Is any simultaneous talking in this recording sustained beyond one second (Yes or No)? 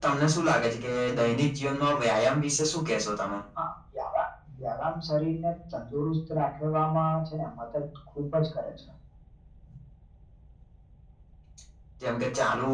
No